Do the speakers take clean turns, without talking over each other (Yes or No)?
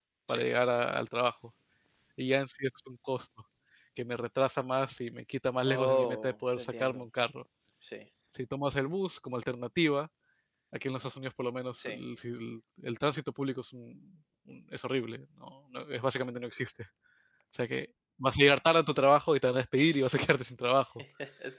No